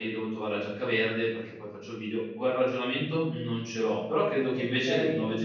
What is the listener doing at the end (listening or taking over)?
listening